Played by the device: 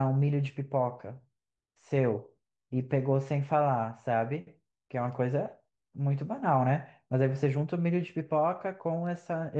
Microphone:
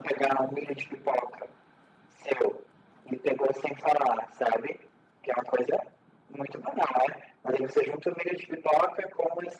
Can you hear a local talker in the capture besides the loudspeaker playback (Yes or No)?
No